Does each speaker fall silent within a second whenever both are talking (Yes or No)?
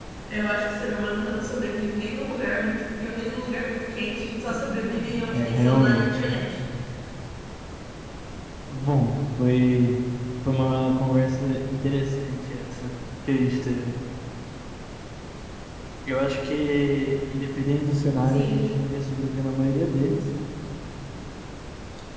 No